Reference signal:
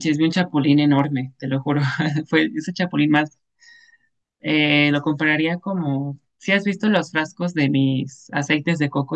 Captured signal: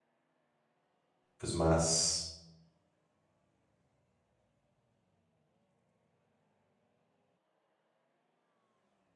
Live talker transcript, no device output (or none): pues más